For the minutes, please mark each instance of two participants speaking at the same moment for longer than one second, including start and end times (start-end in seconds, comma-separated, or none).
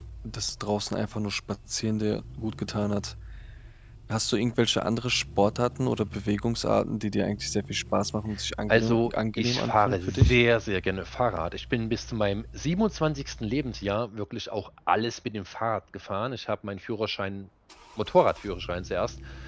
8.7-10.4